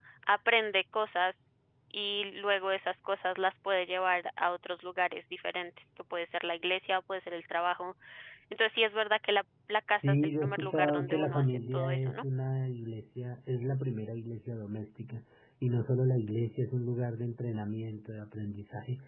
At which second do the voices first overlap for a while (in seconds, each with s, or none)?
10.0 s